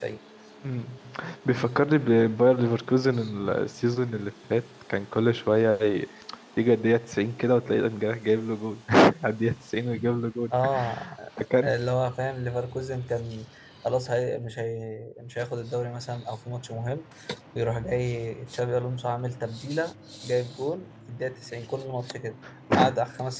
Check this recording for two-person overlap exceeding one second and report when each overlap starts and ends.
none

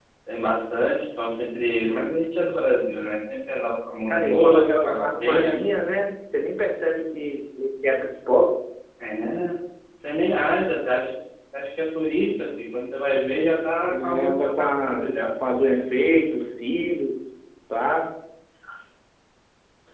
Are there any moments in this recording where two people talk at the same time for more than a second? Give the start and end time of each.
4.1-5.6, 13.9-15.1

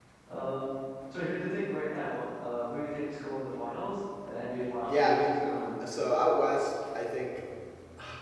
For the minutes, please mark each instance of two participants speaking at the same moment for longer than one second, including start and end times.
none

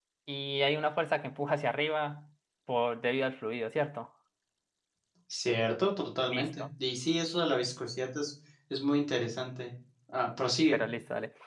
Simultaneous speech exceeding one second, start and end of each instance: none

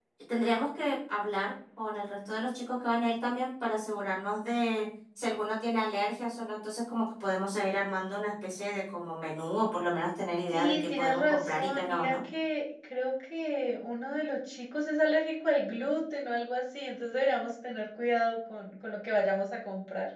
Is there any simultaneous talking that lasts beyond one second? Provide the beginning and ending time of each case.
10.5-12.1

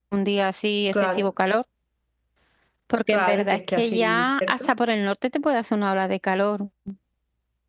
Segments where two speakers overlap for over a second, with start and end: 3.1-4.7

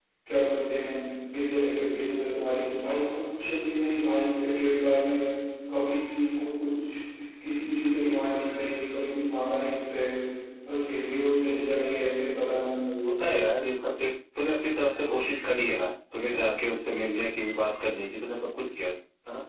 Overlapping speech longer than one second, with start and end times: none

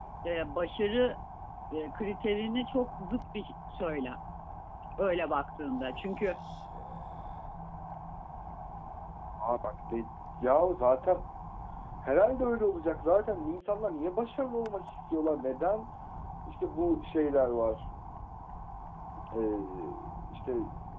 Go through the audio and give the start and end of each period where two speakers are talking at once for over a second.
none

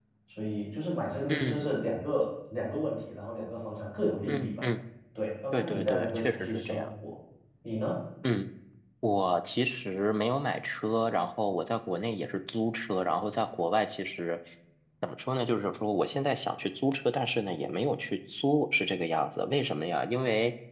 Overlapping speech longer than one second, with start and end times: 5.5-6.9

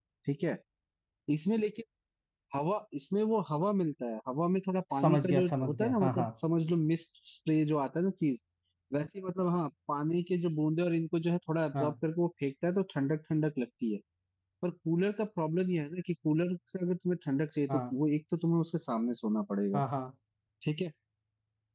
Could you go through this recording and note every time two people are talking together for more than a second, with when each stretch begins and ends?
5.0-6.3

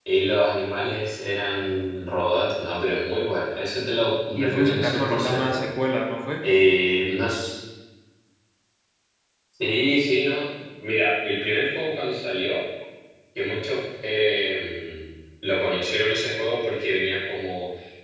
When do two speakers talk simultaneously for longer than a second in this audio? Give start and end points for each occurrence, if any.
4.4-5.6

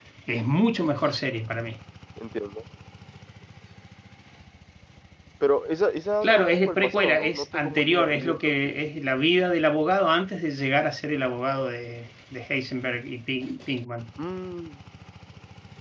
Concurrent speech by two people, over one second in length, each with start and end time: 6.2-8.8

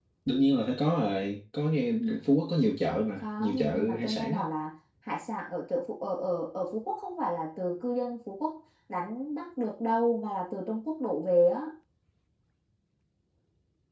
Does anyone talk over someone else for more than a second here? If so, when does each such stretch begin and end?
3.2-4.5

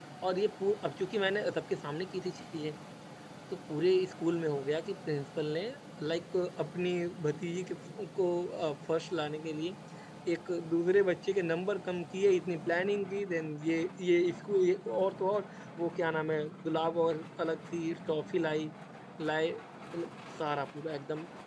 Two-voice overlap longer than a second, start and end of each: none

